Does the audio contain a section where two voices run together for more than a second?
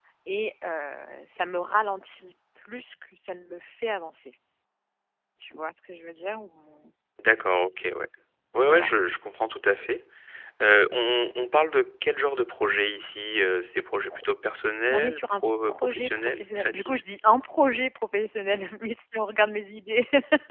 Yes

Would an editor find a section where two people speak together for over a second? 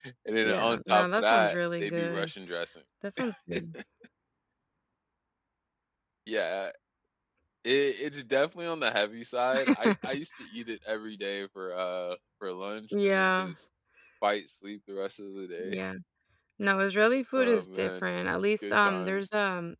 Yes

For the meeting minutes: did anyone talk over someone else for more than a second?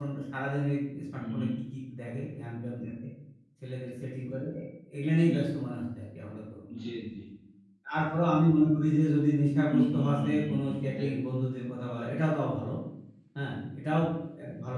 Yes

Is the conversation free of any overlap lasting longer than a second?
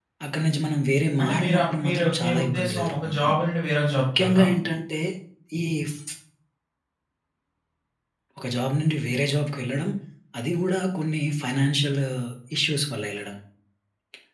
No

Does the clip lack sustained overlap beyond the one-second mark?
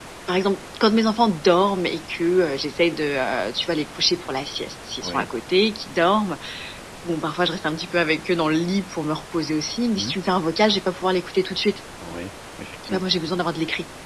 Yes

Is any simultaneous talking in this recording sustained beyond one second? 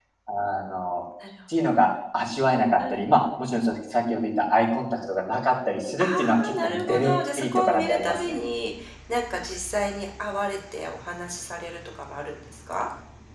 Yes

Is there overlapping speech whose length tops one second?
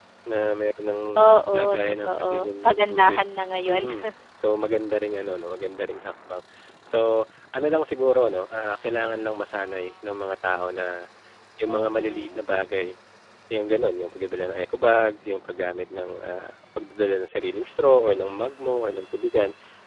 Yes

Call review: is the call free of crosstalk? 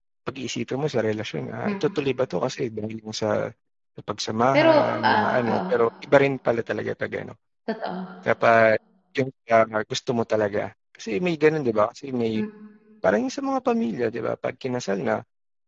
No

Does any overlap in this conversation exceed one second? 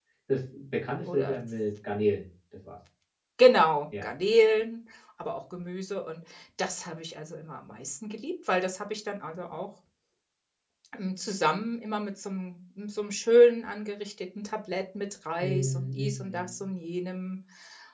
Yes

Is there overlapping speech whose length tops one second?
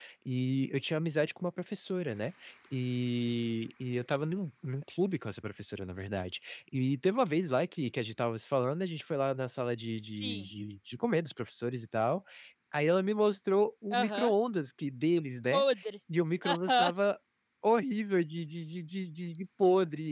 No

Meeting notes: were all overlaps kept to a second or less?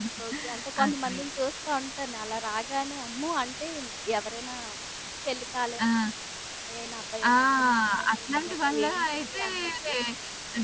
No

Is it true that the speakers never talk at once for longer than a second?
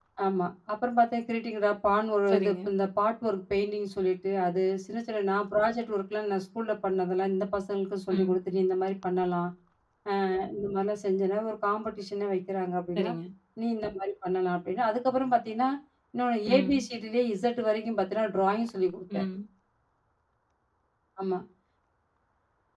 Yes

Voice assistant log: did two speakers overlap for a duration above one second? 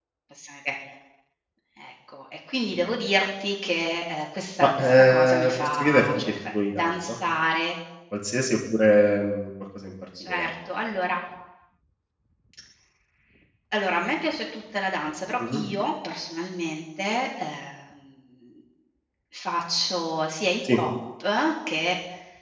Yes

